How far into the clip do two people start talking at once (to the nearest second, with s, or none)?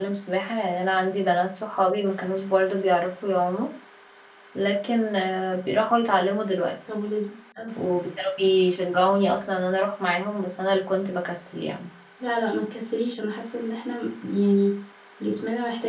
none